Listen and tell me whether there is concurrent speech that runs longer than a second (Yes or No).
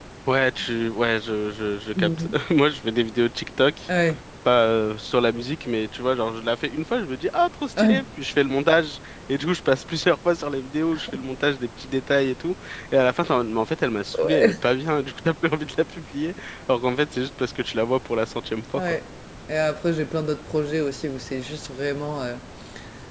No